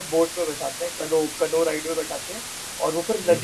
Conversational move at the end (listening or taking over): listening